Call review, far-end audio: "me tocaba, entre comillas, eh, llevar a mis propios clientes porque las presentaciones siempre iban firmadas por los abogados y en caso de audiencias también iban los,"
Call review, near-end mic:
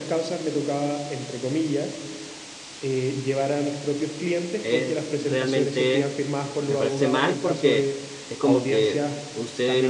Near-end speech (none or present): present